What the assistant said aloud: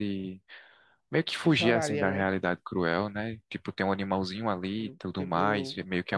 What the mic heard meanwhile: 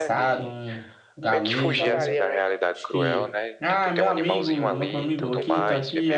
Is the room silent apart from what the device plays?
No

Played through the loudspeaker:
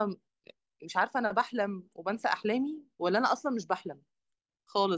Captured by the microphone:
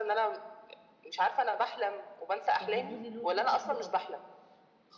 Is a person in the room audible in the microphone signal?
Yes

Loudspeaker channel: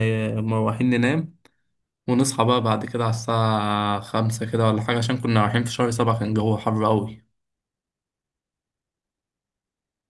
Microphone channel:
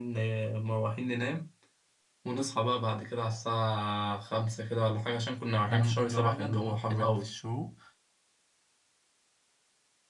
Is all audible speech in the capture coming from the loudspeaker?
No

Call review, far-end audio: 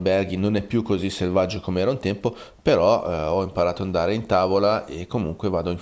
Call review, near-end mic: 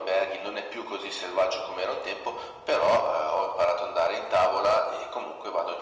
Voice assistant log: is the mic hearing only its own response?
Yes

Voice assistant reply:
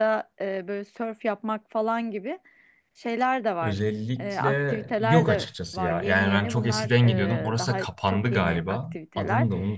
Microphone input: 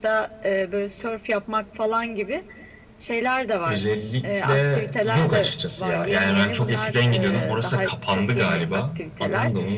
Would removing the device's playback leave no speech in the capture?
Yes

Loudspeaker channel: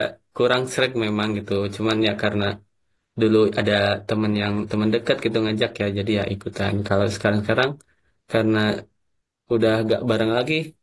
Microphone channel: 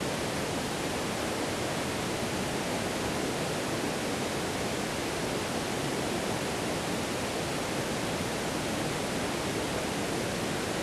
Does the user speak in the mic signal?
No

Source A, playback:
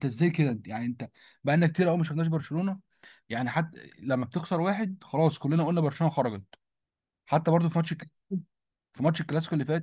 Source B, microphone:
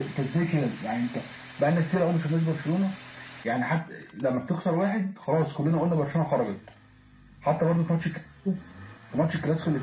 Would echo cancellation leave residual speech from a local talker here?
No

